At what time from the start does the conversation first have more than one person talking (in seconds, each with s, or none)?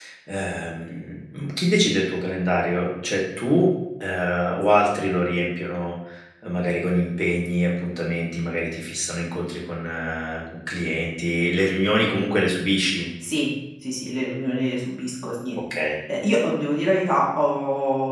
none